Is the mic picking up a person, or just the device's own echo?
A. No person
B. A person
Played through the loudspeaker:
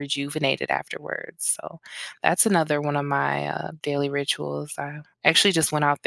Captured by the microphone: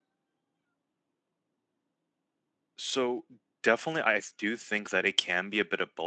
B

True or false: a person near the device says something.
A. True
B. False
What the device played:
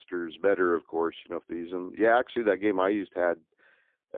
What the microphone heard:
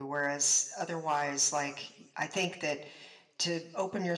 A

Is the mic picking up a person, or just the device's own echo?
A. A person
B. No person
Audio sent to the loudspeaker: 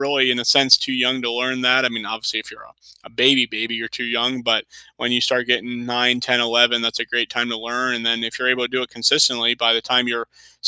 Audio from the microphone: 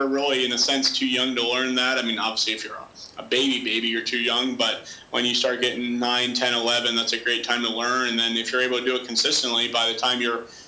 B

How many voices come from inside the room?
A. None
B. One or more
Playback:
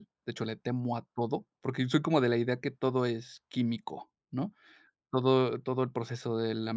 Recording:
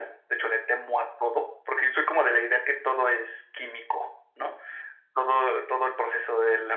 A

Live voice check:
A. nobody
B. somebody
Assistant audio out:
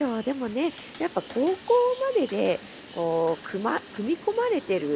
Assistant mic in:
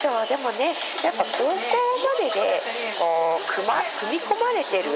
B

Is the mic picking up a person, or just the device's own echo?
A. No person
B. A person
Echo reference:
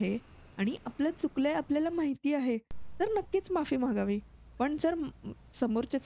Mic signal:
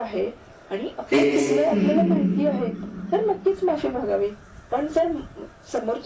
B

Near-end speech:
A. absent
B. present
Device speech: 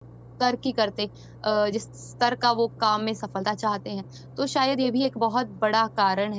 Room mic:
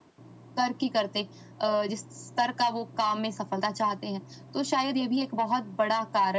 A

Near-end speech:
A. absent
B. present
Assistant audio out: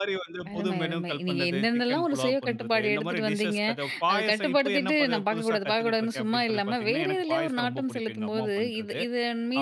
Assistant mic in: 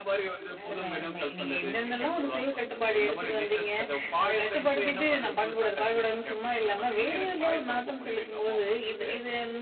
A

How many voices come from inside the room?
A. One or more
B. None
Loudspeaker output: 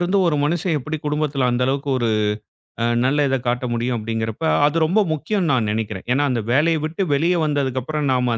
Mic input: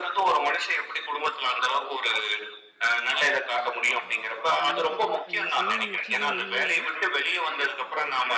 A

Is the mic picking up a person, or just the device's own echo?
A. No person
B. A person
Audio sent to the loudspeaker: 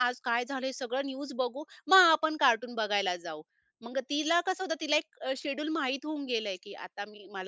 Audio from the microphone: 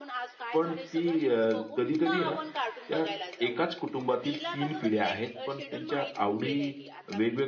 B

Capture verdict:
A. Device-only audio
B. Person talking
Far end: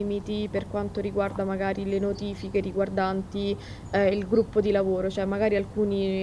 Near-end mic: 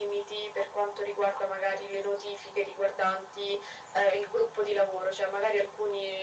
A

